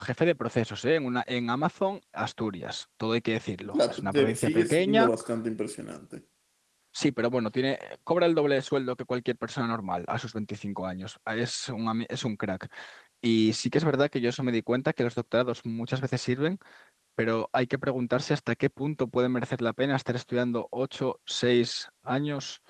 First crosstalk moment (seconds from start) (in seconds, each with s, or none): 3.6 s